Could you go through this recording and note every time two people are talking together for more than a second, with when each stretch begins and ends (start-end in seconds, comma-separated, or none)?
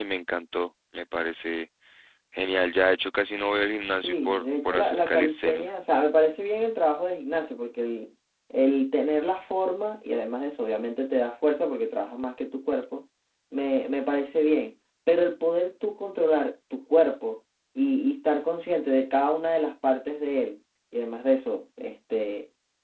4.0-5.7